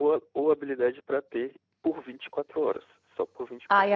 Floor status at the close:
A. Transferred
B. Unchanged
A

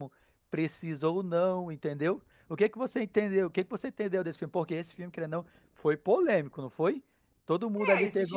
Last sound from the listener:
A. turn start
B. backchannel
A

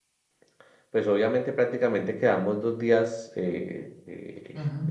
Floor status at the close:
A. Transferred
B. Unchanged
B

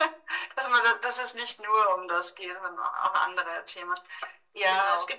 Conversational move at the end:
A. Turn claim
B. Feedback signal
B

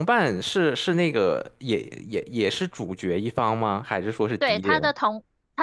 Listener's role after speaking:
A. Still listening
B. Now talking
B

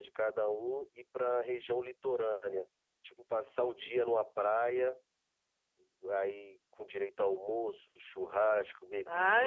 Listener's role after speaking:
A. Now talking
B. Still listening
A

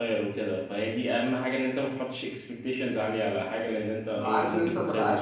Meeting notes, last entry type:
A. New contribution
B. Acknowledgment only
A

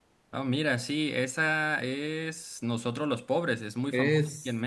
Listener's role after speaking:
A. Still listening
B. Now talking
B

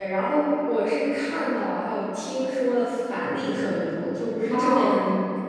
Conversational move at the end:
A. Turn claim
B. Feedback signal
B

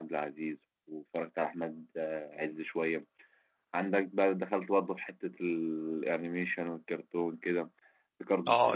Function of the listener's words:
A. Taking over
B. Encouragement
A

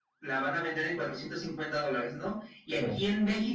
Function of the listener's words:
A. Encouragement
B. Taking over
A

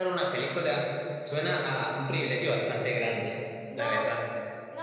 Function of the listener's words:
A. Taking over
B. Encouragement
A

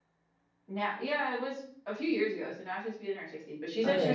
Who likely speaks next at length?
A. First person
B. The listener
B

